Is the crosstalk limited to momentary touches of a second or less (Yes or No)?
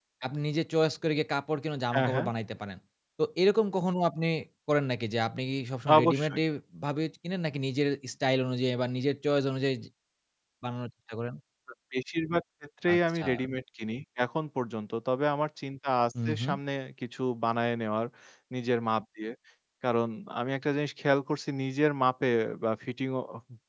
Yes